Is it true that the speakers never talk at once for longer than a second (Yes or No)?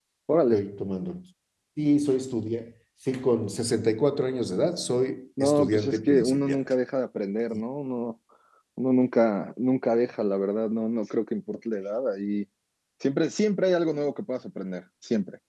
No